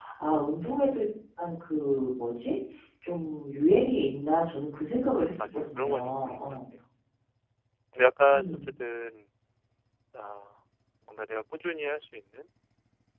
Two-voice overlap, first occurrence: 5.4 s

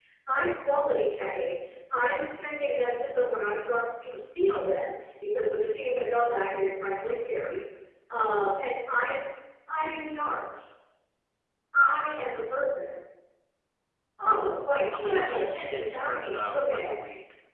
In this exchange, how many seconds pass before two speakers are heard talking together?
14.9 s

